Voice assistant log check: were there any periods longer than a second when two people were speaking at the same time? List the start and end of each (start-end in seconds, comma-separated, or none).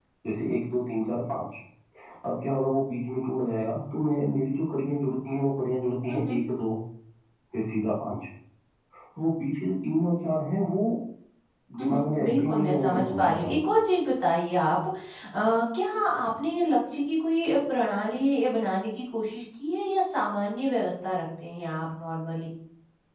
11.8-13.6